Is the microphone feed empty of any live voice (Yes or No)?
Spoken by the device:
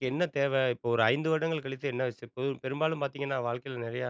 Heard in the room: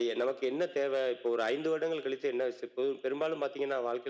Yes